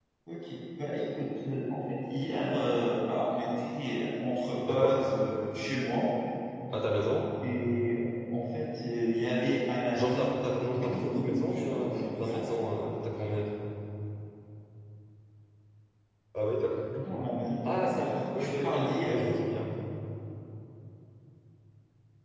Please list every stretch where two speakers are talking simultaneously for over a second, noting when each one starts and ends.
10.7-12.4, 17.6-19.2

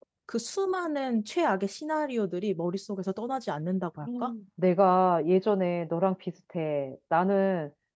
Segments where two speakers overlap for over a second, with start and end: none

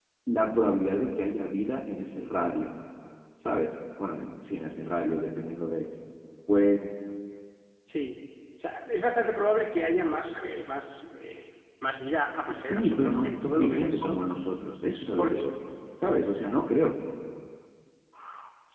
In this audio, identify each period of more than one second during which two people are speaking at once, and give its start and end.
12.4-14.2

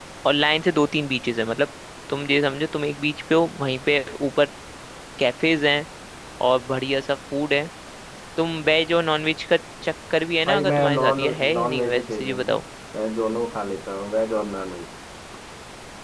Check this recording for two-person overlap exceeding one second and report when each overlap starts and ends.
10.5-12.5

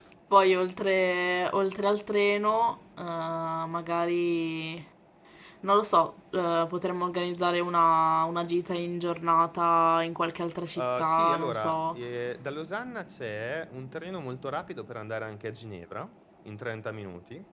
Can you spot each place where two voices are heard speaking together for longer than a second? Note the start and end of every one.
10.8-12.0

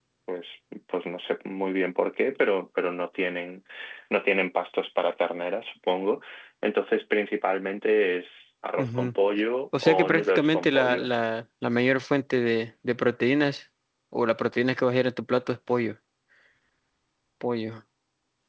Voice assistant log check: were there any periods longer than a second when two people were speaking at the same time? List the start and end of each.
9.8-11.1

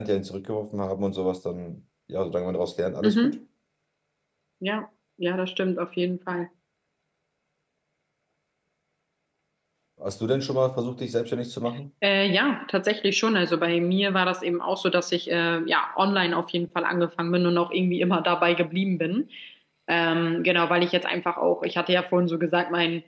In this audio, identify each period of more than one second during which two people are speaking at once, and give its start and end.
none

